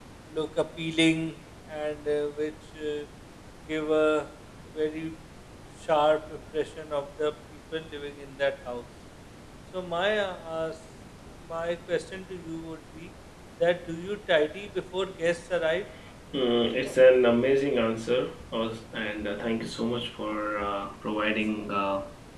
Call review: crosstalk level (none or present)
none